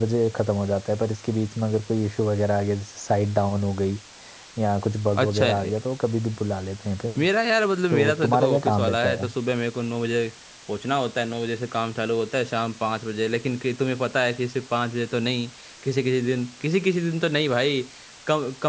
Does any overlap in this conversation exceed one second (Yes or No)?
Yes